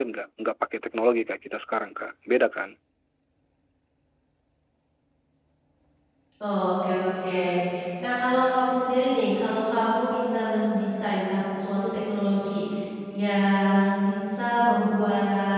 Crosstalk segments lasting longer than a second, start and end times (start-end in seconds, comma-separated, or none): none